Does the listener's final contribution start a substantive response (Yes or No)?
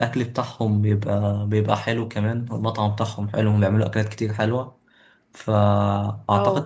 No